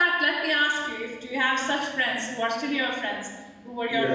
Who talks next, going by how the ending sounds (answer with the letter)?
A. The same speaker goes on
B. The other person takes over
B